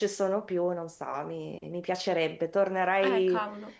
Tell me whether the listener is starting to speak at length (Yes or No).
No